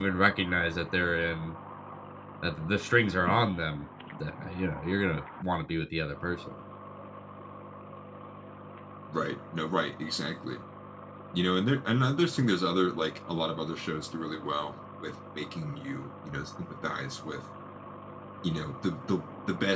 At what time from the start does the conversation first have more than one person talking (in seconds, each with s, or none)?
none